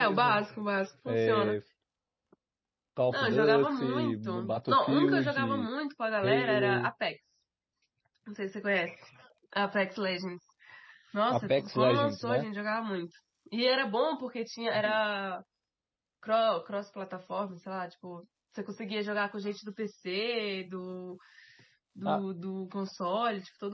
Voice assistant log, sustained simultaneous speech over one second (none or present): present